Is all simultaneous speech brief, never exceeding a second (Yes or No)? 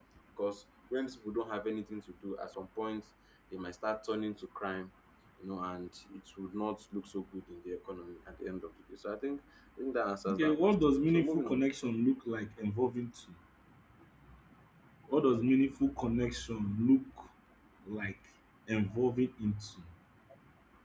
No